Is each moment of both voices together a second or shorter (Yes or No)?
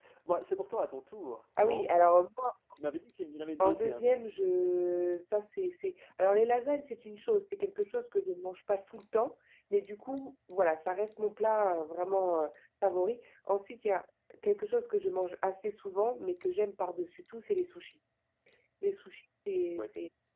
Yes